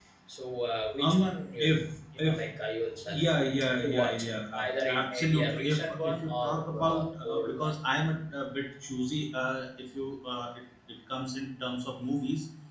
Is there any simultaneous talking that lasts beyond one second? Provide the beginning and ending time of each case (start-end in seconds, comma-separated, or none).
4.7-7.7